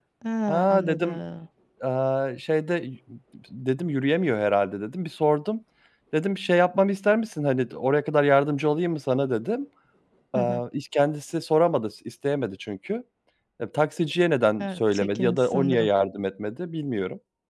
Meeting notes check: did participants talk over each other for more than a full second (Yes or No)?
Yes